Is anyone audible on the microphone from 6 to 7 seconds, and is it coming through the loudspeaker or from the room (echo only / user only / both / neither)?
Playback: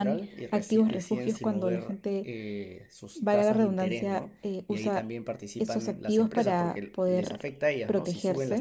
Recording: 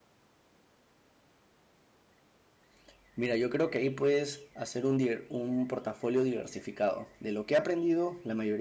user only